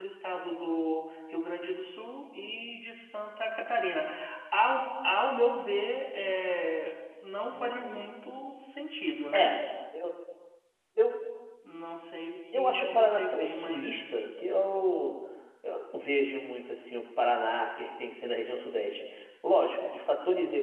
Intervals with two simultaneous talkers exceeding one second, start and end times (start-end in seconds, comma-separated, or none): 12.5-13.9